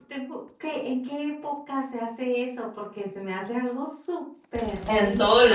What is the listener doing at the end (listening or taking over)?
taking over